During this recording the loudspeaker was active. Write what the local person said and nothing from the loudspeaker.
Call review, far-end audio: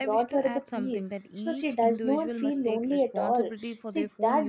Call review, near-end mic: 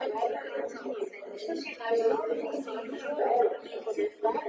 and see if your

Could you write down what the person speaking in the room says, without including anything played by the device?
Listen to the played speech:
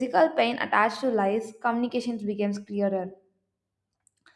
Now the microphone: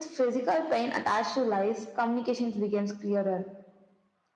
none

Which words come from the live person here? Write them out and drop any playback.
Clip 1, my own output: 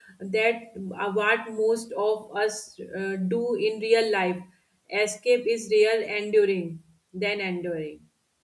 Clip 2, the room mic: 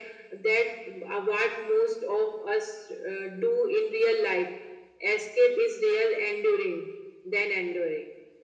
none

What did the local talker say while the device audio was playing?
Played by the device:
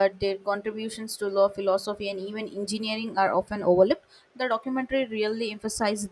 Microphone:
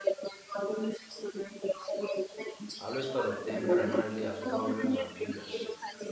I always thought of them primarily as warriors and builders.

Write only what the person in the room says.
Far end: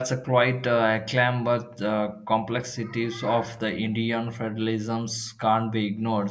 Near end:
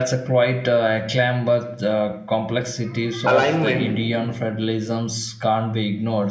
alignment,

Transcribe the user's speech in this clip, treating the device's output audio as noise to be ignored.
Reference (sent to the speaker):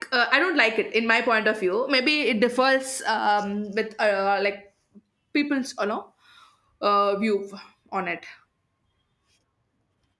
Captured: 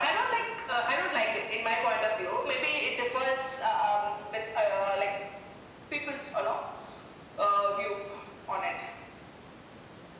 none

